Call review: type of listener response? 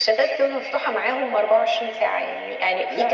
listening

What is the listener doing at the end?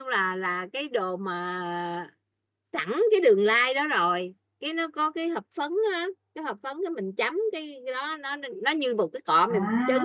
listening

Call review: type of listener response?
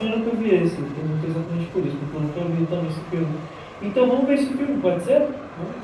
taking over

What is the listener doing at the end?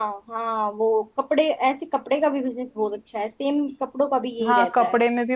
taking over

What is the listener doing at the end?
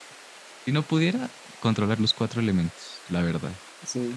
taking over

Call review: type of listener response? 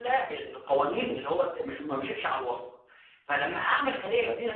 listening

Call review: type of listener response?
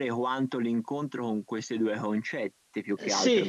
taking over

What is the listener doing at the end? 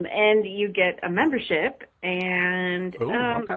listening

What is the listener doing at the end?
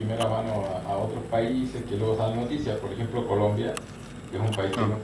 listening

